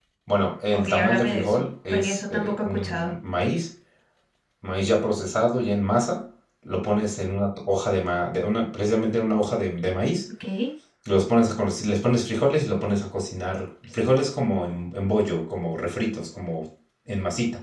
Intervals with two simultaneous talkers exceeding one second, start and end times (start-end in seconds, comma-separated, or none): 0.7-3.1